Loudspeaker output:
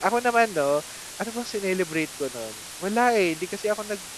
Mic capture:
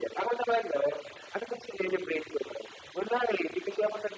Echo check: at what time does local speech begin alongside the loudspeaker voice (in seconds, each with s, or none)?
none